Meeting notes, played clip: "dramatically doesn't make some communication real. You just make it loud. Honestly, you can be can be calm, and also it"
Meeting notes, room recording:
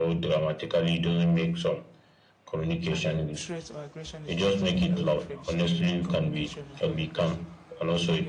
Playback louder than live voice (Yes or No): Yes